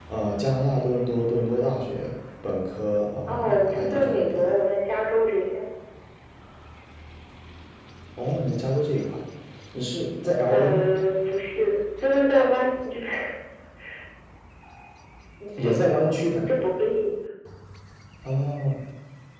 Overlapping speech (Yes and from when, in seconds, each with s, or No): Yes, from 3.3 s